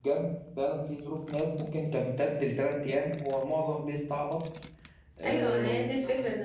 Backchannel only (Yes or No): No